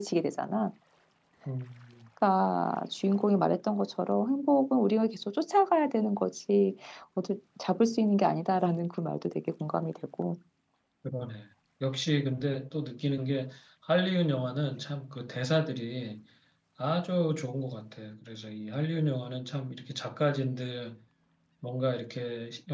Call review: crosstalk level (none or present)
none